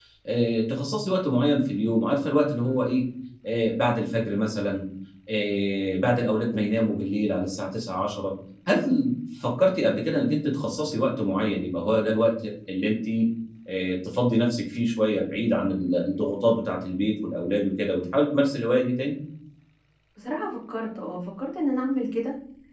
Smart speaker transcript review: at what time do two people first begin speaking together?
none

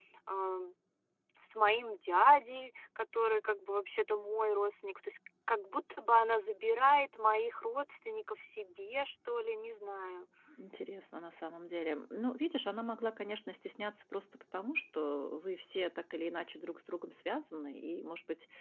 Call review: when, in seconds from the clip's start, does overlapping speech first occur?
none

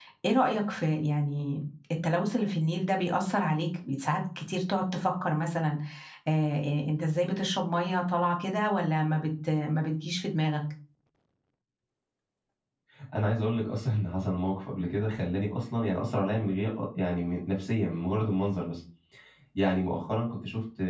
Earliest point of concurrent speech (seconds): none

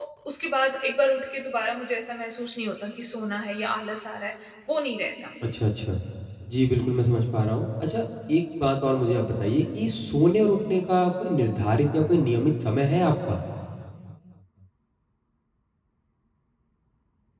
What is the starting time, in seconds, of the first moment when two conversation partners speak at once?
none

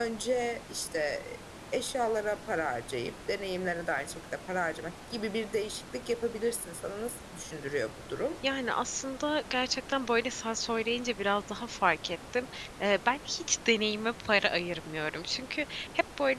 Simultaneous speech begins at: none

